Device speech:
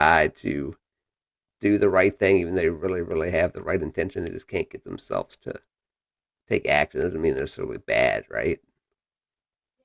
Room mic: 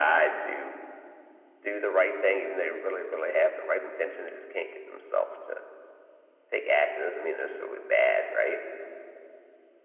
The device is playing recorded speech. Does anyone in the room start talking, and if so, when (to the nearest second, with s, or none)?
none